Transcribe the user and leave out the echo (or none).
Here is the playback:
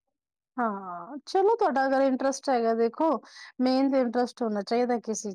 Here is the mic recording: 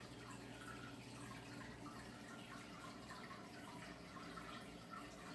none